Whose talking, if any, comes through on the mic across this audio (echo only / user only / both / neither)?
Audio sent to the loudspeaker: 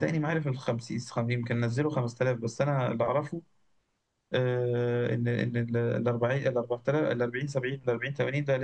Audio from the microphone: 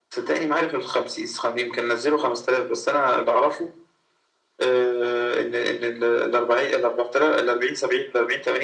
echo only